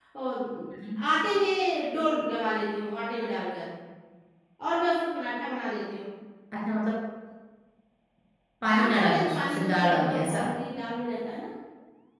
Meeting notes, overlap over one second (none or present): present